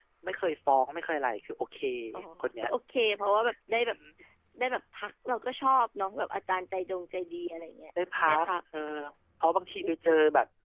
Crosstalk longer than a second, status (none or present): none